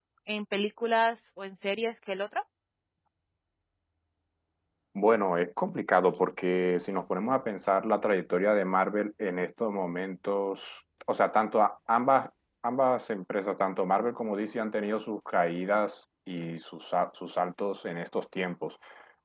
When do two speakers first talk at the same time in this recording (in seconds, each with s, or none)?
none